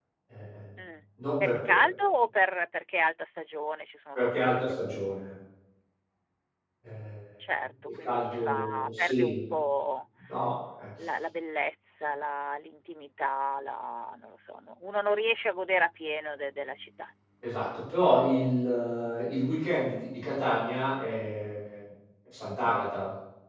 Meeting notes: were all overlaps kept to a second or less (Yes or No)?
No